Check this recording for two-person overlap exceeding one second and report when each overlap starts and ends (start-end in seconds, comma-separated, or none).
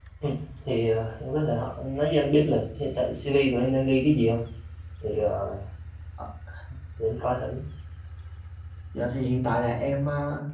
none